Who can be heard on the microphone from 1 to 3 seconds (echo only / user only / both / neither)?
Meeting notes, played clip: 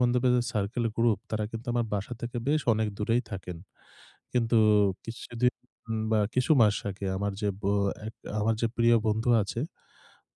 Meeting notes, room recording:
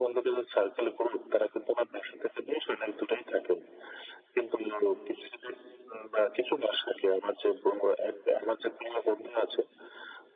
echo only